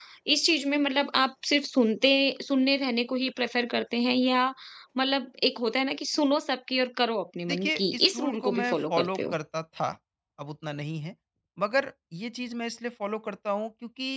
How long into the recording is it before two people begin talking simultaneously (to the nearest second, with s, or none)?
7 s